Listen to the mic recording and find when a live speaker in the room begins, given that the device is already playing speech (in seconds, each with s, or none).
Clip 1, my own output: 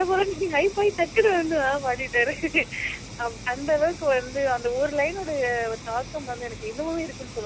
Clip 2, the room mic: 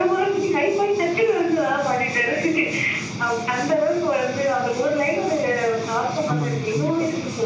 6.3 s